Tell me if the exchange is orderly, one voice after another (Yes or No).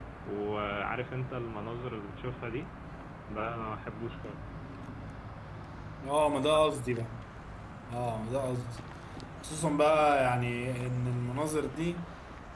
Yes